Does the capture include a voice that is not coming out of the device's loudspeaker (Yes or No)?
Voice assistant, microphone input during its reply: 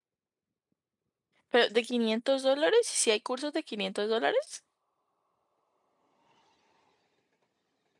Yes